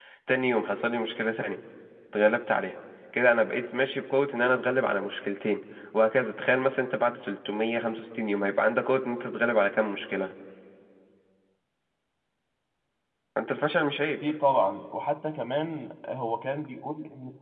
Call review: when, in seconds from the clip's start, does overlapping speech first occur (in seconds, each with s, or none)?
none